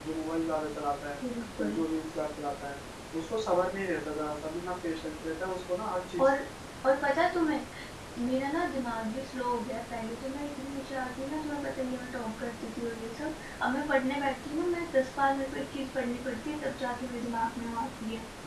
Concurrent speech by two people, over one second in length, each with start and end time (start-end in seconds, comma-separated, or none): none